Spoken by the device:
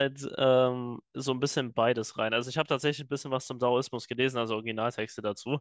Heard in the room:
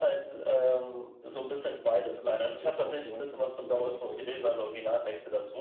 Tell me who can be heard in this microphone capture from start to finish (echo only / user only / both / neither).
both